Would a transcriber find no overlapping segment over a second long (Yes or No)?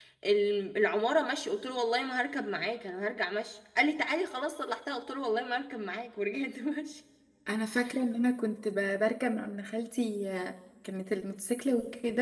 Yes